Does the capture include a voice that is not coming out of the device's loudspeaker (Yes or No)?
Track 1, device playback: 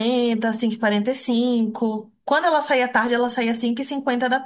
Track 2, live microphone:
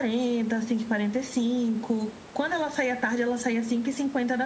No